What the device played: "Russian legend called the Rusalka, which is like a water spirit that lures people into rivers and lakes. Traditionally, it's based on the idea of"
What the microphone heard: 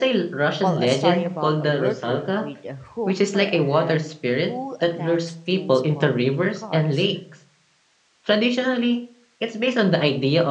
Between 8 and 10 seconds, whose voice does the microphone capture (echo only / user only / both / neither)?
echo only